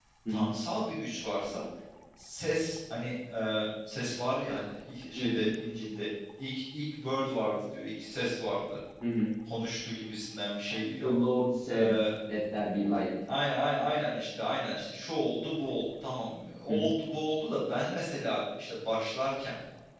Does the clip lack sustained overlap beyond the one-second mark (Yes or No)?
Yes